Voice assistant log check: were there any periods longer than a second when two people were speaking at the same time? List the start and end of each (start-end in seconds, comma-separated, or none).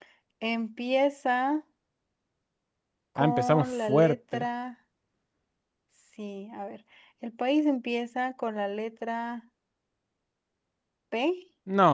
3.2-4.4